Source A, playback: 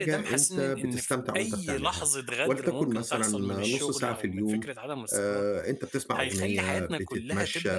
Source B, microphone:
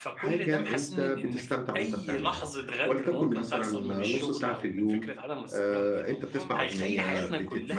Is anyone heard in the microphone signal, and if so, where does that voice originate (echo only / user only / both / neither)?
both